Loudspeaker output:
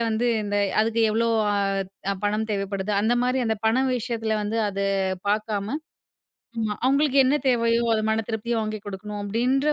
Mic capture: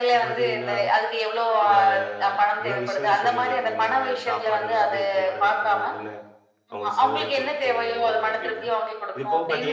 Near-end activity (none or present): present